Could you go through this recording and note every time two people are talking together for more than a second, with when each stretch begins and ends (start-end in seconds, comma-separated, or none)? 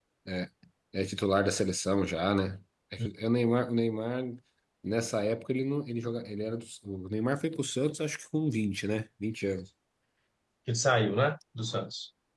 none